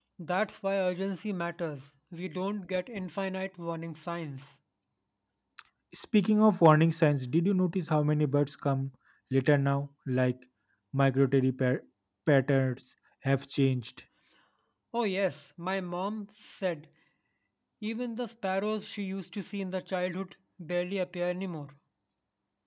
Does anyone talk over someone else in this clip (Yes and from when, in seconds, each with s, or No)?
No